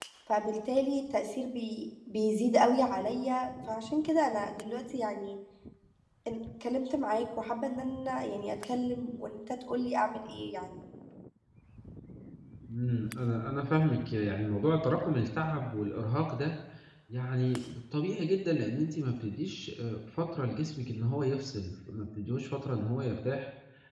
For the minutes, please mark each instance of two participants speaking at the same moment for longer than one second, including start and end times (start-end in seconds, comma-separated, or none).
none